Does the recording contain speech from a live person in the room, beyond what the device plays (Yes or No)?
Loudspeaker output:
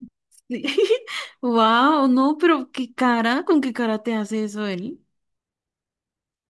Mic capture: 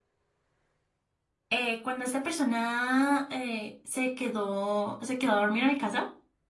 Yes